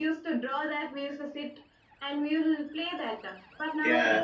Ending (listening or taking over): listening